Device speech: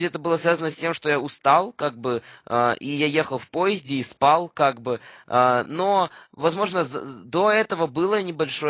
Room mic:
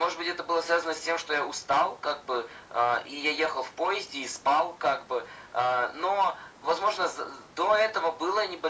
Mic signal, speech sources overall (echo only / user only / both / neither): echo only